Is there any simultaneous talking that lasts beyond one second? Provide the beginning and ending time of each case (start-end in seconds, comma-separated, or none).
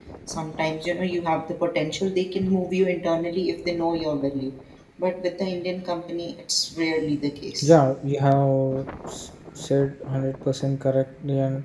none